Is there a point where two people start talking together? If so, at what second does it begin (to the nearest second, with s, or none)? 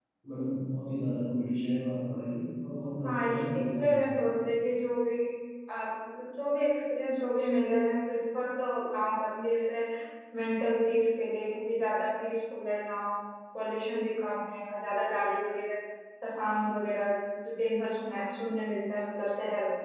3 s